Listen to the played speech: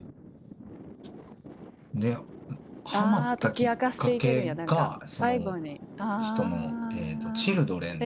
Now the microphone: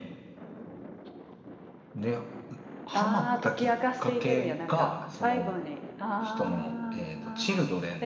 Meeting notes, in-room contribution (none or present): none